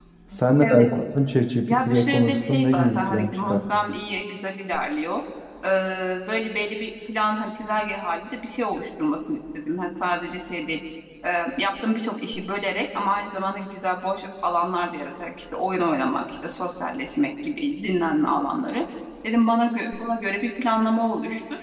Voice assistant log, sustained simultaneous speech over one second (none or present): present